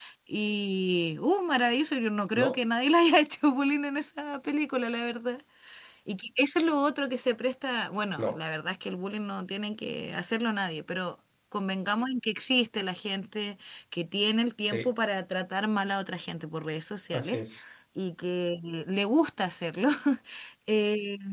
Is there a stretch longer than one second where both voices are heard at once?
No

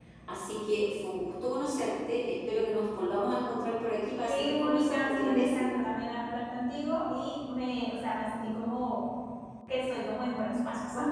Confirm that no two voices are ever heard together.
No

